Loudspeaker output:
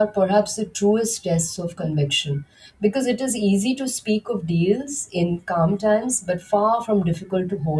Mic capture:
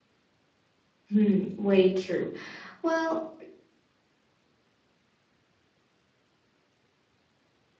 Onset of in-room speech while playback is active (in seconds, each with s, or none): 1.1 s